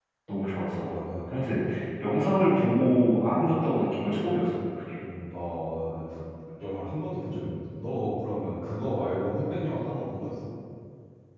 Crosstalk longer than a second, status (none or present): none